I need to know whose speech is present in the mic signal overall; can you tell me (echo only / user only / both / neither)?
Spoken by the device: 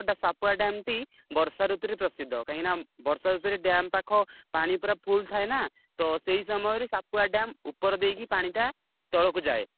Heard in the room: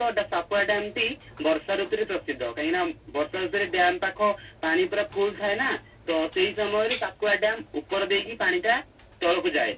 echo only